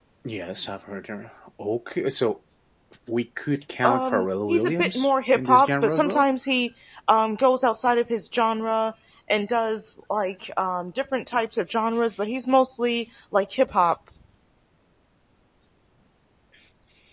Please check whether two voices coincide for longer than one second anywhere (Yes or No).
Yes